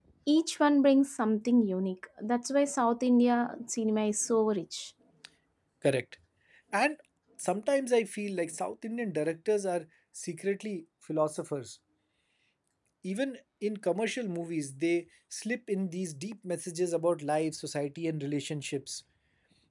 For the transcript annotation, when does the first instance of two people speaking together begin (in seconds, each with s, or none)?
none